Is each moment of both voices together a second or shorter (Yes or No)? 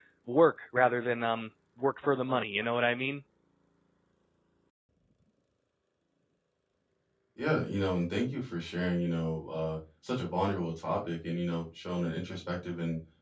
Yes